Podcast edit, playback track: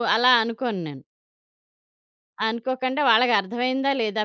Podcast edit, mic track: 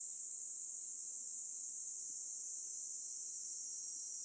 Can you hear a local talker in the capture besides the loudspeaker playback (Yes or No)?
No